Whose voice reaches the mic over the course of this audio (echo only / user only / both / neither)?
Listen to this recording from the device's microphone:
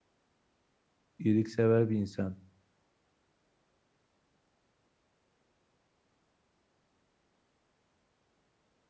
user only